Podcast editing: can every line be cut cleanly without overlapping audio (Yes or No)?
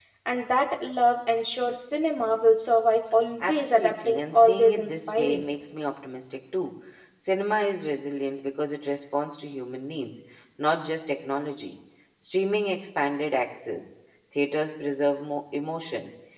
No